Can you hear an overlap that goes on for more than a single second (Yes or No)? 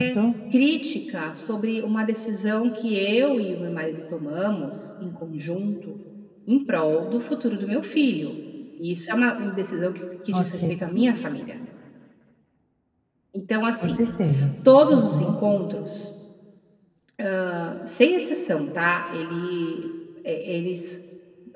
No